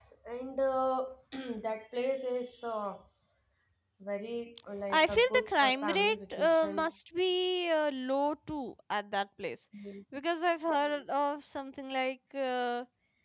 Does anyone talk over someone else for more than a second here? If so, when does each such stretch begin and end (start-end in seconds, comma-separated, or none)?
4.9-6.9